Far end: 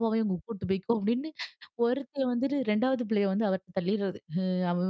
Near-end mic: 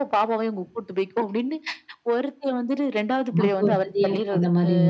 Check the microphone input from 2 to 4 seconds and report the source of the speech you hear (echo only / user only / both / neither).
both